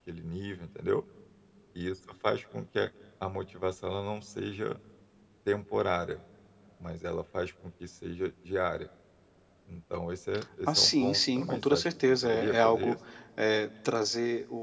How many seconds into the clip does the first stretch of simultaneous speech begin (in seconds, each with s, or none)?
10.7 s